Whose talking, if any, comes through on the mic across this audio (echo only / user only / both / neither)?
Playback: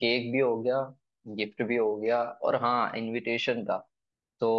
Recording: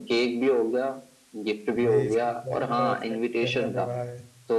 both